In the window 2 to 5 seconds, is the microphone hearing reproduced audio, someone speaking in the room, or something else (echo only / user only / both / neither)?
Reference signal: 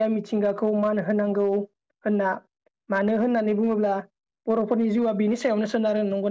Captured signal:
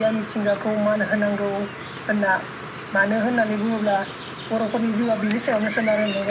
echo only